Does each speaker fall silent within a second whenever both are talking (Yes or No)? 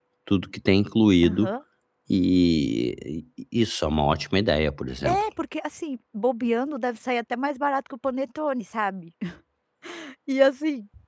Yes